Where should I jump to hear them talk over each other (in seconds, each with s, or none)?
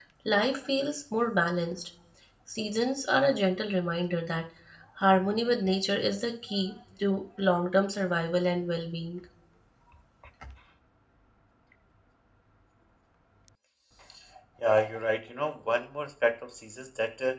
none